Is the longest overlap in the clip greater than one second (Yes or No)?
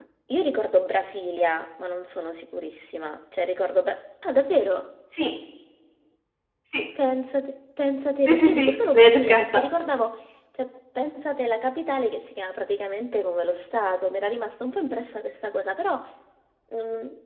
Yes